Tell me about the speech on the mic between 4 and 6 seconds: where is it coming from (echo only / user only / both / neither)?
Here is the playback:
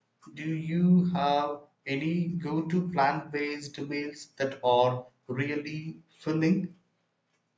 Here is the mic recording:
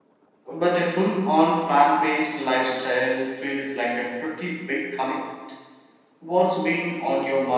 user only